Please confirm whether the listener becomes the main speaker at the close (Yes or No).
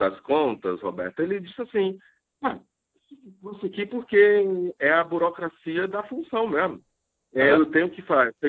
No